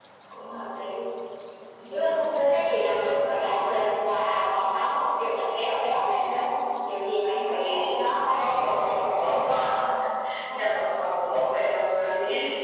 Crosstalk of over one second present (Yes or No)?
Yes